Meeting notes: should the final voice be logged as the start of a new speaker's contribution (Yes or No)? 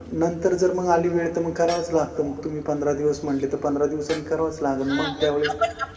Yes